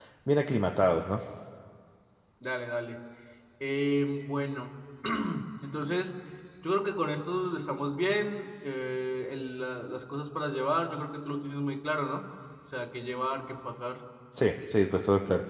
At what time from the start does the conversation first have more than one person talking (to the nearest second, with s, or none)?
none